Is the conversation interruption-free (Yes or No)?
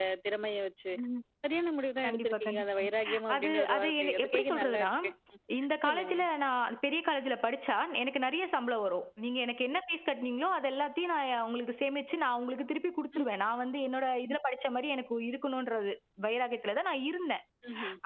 No